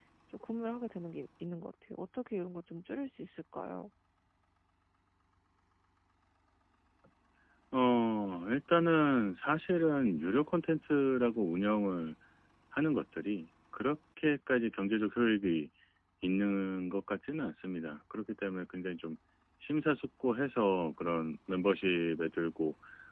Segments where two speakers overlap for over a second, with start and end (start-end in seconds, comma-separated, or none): none